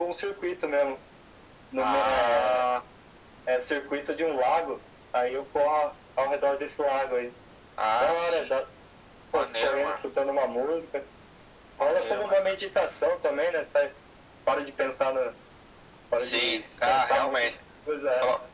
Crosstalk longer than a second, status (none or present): present